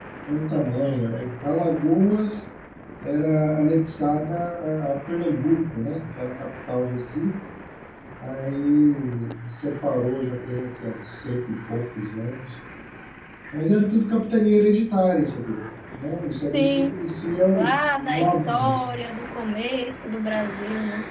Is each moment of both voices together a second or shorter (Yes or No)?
No